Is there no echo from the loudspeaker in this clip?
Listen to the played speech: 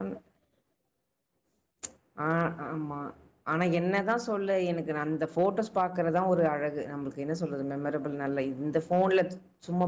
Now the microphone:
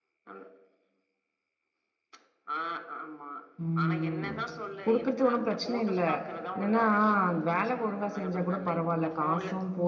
No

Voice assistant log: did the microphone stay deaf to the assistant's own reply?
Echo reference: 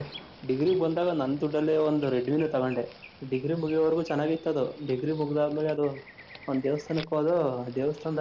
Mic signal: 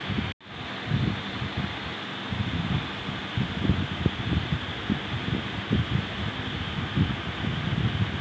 Yes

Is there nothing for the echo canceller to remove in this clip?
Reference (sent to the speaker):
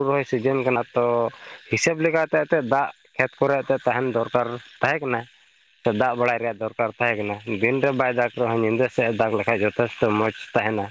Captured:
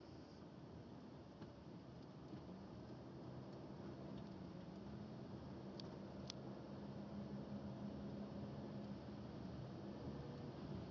Yes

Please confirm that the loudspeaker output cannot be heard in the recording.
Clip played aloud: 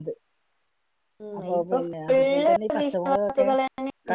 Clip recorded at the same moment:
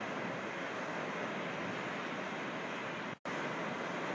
Yes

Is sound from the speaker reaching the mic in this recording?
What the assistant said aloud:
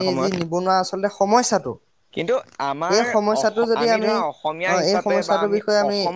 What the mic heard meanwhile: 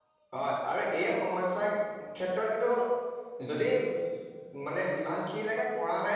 No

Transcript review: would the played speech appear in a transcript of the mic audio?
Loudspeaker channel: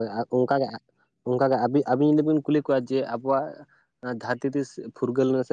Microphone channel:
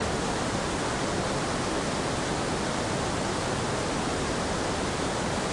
No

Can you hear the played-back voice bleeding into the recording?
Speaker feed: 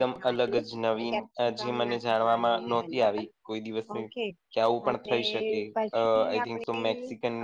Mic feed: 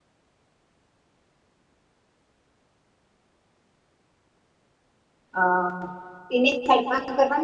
No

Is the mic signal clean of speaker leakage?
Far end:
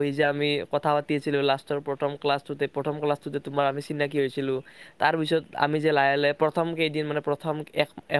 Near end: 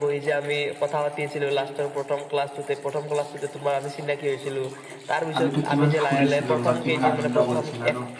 No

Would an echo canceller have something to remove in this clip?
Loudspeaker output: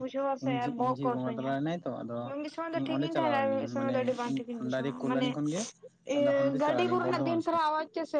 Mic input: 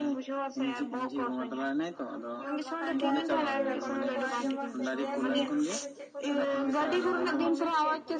Yes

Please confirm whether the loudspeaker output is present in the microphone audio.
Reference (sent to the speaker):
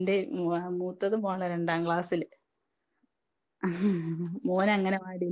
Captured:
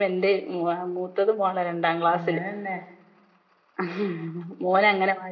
Yes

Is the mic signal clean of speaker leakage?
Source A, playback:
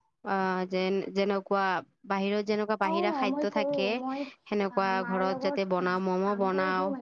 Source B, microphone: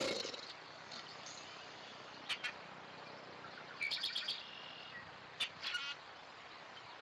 Yes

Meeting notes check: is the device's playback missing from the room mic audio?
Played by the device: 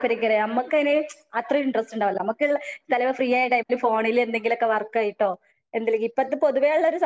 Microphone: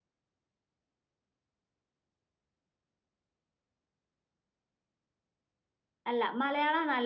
Yes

